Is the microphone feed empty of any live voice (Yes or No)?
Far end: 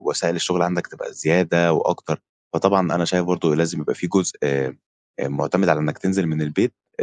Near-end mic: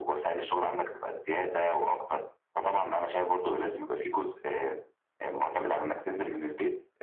Yes